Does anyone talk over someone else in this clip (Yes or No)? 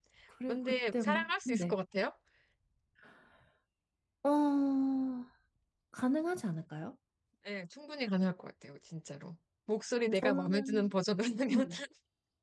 Yes